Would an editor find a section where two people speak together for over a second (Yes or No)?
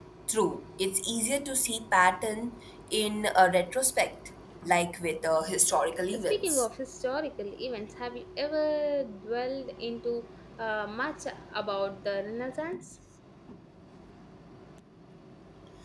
No